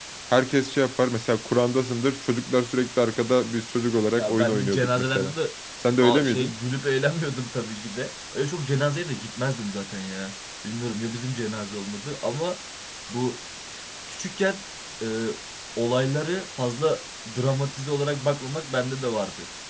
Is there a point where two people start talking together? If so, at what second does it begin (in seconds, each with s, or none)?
4.1 s